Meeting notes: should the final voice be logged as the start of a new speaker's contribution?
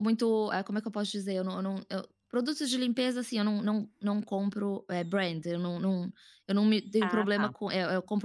No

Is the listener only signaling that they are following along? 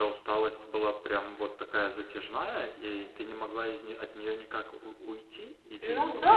No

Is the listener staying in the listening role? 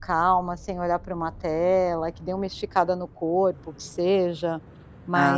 Yes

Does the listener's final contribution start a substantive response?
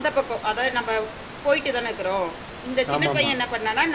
No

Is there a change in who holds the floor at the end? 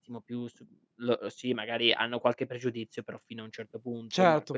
No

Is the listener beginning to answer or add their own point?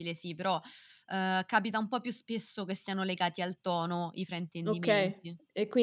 Yes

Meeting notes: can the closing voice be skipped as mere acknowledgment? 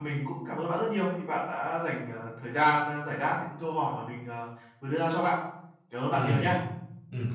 No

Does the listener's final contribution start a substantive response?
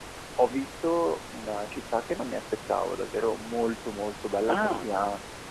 No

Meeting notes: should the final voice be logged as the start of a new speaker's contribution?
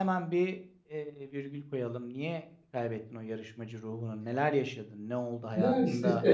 Yes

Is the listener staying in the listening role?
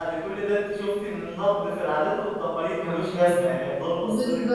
No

